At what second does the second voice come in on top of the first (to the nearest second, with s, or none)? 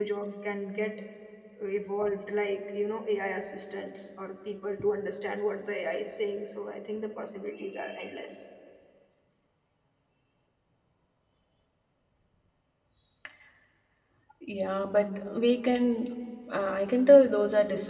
none